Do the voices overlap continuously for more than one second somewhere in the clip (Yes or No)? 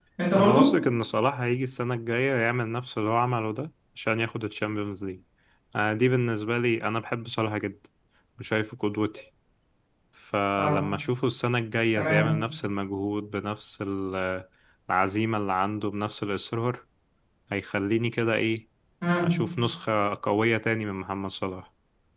No